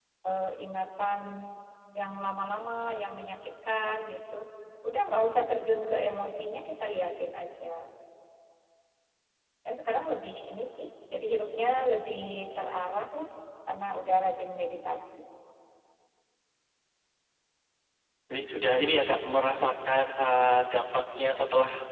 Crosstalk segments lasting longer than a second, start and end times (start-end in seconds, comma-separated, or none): none